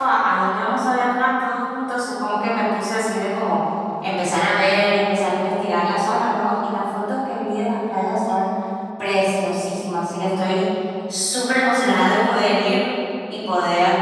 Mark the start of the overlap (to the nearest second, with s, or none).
none